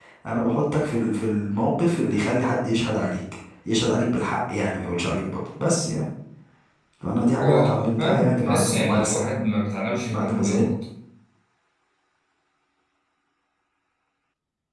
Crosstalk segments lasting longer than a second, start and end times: 7.4-9.4

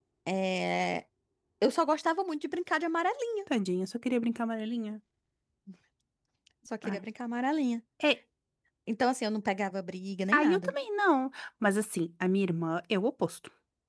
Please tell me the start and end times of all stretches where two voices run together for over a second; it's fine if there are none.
none

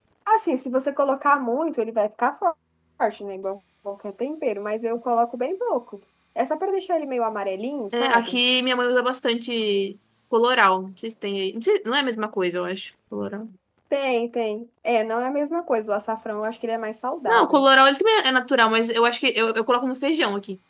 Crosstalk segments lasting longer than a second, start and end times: none

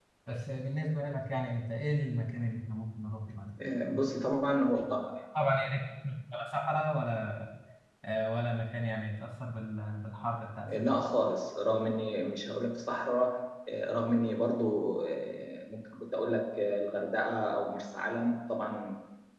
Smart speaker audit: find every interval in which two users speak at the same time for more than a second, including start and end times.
none

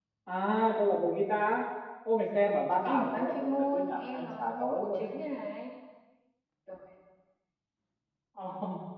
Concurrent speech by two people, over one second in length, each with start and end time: 2.8-5.1

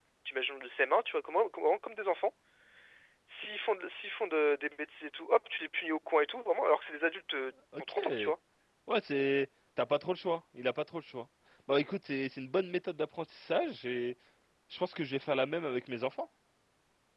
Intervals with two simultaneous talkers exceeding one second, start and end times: none

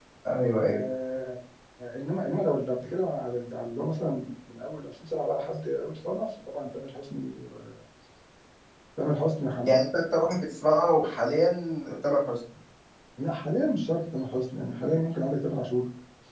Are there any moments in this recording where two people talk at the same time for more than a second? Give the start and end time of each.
none

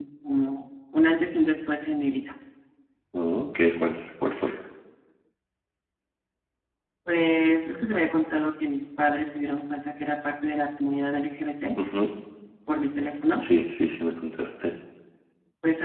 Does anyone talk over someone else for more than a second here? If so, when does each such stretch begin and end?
none

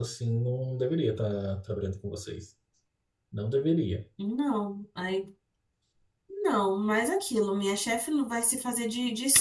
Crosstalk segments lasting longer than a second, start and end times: none

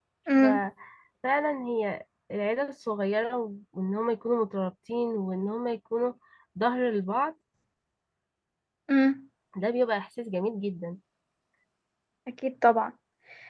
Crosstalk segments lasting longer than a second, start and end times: none

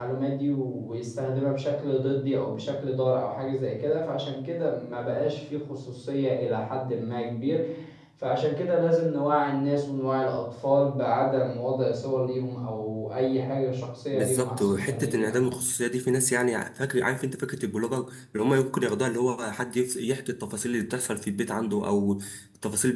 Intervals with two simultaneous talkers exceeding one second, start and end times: 14.1-15.5

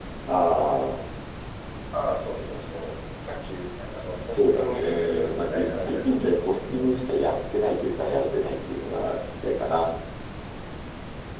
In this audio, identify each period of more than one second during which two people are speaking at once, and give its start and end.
4.3-6.9

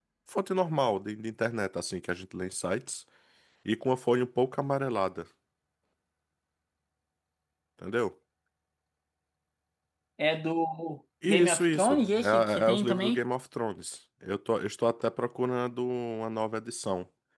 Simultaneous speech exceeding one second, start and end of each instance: 11.2-13.2

